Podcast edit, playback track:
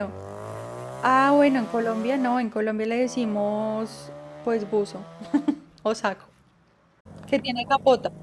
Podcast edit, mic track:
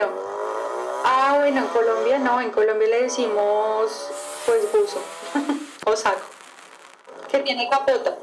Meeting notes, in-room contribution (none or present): none